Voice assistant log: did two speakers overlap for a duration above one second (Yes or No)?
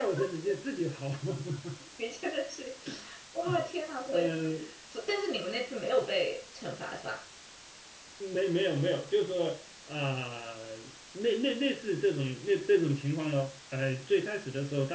No